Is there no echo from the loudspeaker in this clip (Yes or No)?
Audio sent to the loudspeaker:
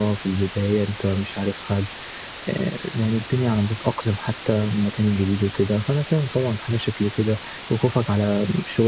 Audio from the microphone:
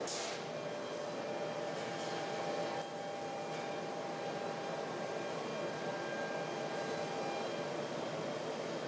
Yes